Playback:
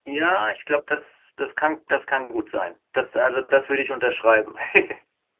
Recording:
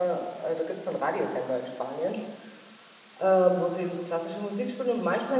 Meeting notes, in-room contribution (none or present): present